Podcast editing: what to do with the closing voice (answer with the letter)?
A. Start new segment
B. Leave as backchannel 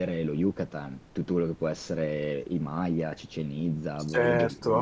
A